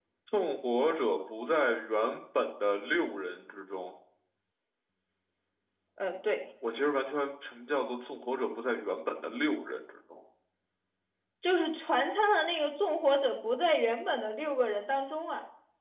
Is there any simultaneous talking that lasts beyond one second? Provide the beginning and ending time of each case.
none

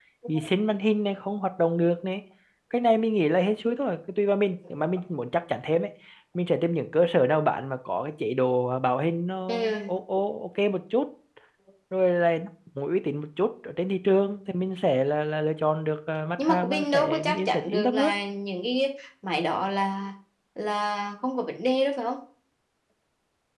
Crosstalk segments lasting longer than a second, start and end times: 16.4-18.1

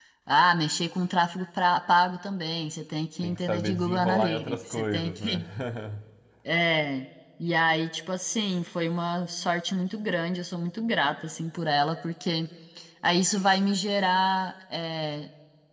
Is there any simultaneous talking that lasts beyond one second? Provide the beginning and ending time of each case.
3.2-5.4

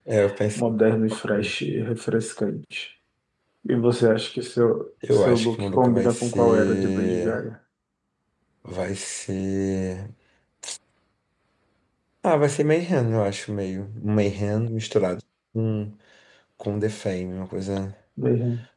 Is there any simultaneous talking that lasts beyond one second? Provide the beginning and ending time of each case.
5.1-7.4

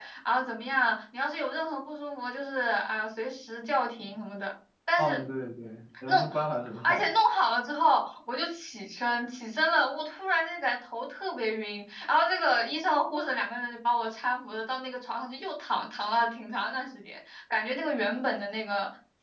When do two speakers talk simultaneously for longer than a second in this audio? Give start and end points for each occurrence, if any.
none

